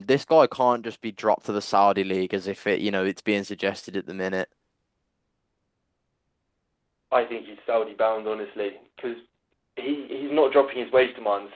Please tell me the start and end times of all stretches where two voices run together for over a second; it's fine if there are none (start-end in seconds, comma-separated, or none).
none